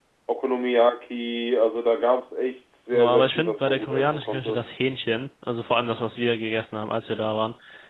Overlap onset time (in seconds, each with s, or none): 2.9 s